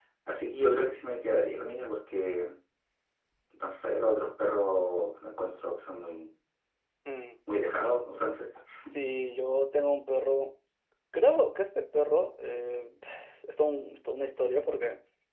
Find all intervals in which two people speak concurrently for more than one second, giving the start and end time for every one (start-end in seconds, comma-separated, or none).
none